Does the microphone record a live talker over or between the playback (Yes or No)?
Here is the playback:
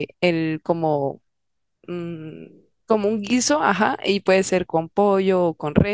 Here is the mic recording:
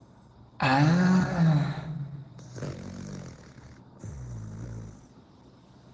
Yes